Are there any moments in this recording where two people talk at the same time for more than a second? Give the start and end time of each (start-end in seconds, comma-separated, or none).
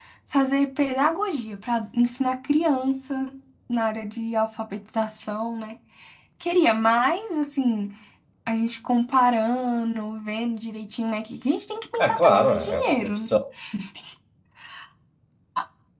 12.0-13.3